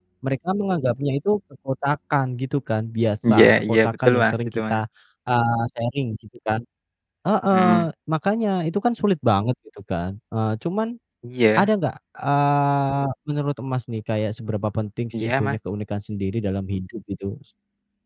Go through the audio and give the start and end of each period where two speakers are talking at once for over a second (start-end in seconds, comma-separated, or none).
3.3-4.8